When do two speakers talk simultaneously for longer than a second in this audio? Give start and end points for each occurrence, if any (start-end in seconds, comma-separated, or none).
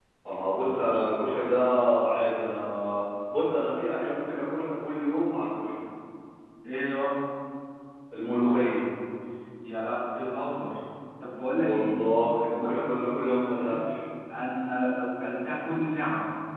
12.6-13.8